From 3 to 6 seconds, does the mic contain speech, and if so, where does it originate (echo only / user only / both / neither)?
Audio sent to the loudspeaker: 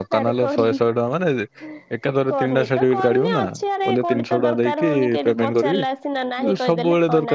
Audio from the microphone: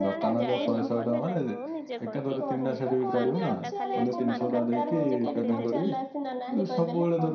both